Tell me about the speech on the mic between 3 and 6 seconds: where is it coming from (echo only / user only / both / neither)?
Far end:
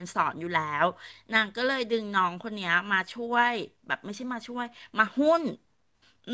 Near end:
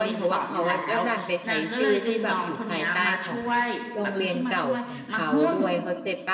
both